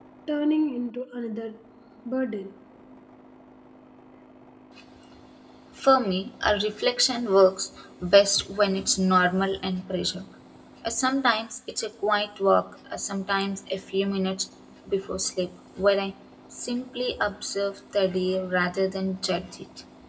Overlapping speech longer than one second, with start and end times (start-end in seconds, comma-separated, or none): none